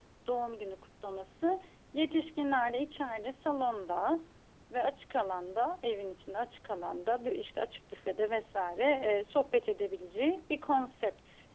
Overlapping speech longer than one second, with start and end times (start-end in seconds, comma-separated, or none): none